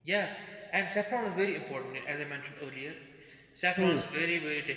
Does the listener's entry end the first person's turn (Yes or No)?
No